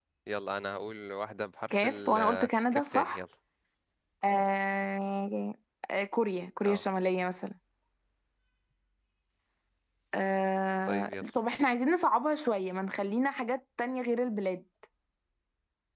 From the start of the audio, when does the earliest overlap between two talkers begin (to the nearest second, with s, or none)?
2 s